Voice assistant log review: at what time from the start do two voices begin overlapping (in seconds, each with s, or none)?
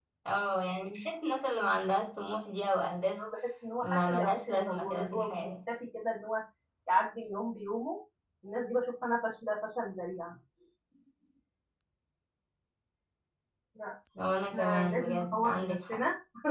3.8 s